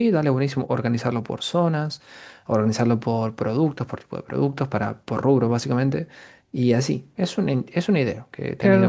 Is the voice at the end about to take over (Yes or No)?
Yes